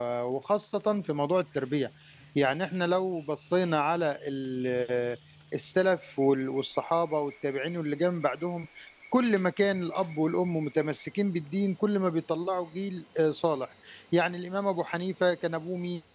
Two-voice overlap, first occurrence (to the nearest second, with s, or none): none